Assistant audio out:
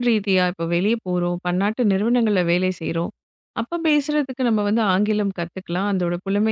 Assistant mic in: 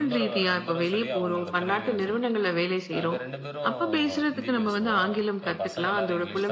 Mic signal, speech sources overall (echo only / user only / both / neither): both